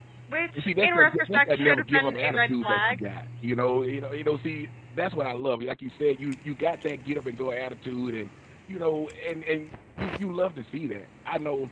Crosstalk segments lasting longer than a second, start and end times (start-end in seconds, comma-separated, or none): 0.5-3.0